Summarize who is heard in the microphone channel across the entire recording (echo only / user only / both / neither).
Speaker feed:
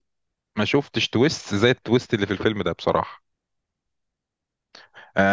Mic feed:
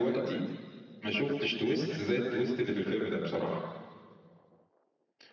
echo only